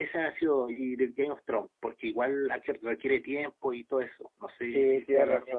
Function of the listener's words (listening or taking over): taking over